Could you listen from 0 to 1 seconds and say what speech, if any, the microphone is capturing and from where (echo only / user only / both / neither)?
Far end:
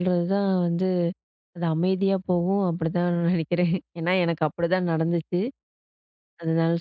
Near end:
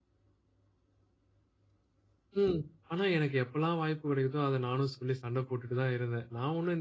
neither